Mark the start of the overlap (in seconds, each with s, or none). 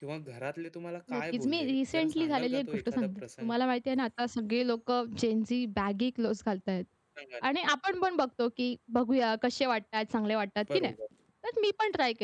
1.1 s